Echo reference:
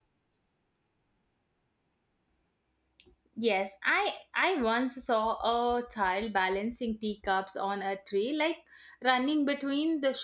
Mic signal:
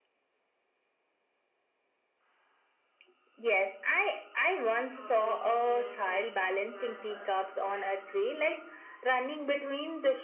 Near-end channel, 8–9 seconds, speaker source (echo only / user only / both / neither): both